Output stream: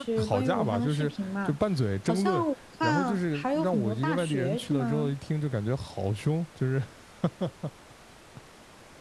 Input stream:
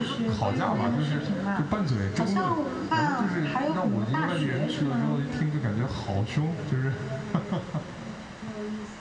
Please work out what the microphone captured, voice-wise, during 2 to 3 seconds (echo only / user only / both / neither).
both